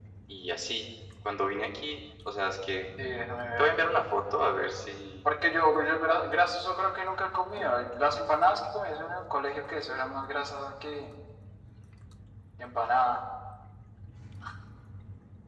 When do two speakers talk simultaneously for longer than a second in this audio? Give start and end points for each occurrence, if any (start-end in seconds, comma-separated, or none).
none